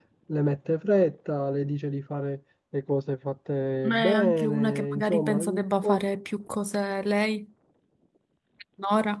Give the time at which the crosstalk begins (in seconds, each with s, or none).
3.8 s